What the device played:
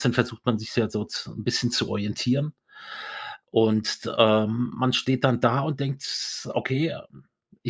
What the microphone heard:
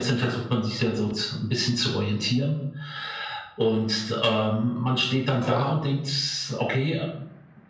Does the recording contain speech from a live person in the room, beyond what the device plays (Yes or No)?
Yes